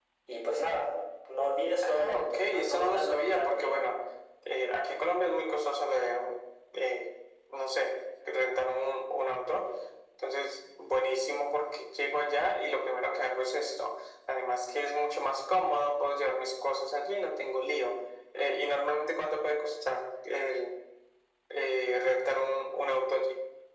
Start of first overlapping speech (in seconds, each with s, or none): 1.8 s